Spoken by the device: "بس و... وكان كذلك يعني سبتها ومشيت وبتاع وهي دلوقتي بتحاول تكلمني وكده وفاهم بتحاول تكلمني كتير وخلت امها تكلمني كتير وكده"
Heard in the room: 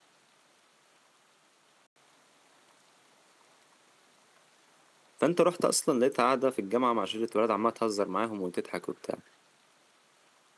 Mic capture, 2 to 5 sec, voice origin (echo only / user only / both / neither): neither